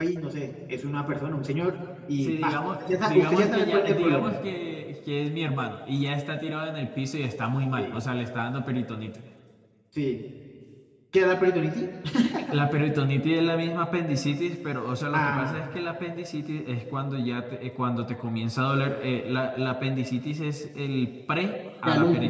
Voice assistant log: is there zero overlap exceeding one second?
No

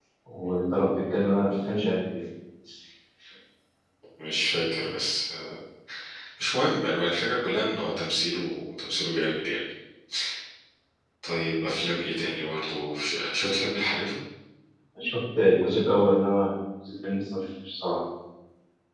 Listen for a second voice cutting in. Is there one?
No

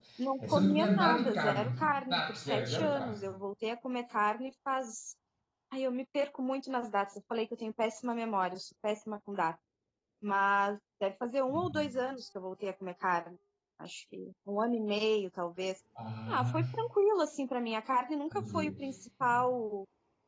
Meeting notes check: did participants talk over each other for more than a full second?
Yes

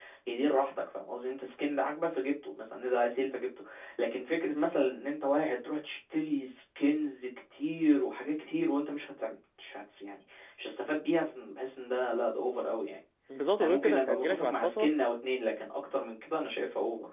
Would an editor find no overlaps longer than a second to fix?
No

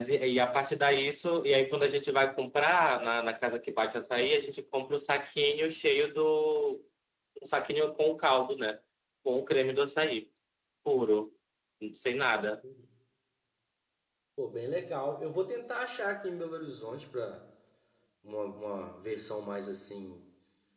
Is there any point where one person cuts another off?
No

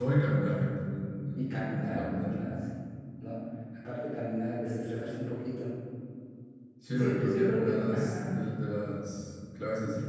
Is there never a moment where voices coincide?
No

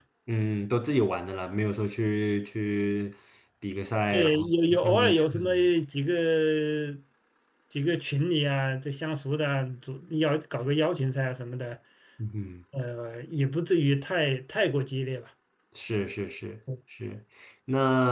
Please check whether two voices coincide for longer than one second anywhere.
Yes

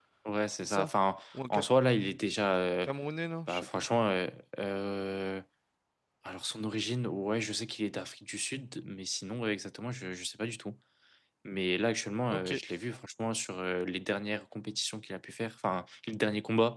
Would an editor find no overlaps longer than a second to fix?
Yes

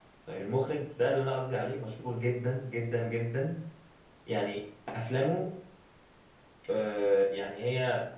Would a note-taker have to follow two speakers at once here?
No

